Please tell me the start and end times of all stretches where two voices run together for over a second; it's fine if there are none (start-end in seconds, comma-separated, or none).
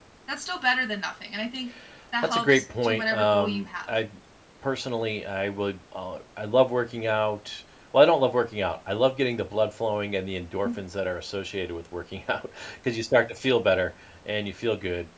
2.2-3.9